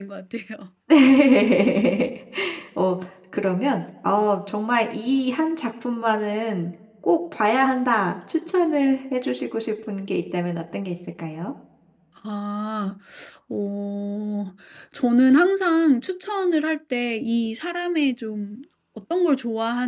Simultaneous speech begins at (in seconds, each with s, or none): none